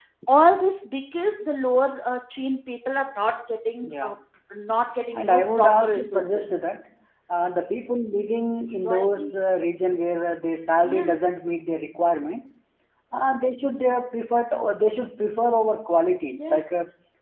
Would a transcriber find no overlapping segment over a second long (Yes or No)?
No